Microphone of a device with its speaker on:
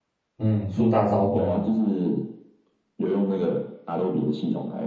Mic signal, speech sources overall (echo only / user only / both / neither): both